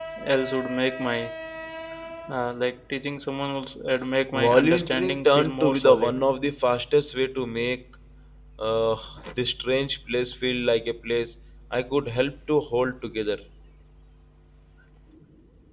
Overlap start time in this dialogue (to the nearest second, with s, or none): 4 s